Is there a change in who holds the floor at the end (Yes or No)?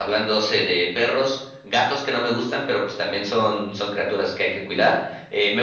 No